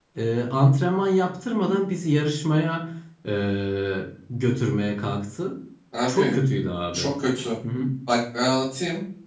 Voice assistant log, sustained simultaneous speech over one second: none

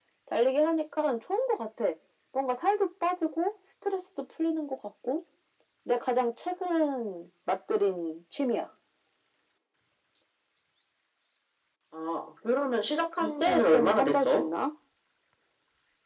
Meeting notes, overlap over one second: present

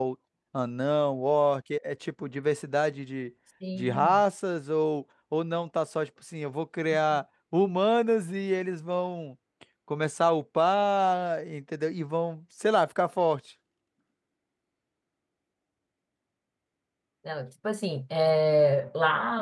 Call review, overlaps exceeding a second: none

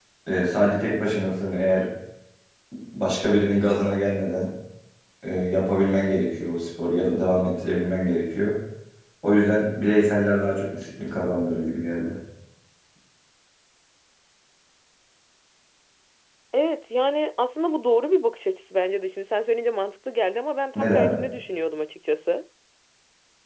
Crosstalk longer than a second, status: none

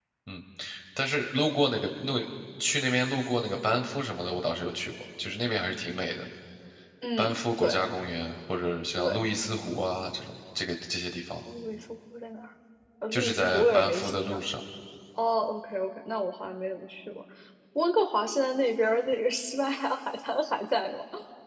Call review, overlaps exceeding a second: present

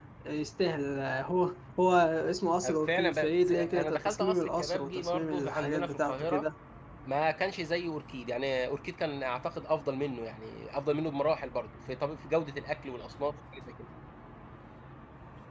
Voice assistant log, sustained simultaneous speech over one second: present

